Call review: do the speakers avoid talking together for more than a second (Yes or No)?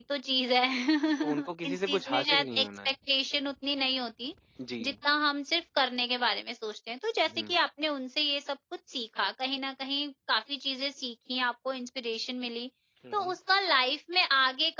No